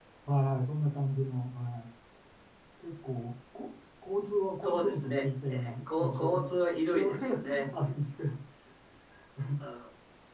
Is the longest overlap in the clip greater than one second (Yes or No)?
Yes